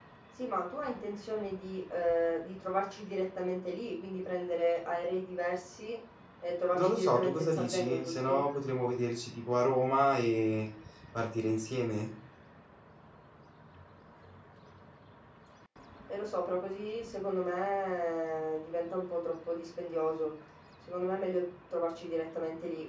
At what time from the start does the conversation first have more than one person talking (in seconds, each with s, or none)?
6.7 s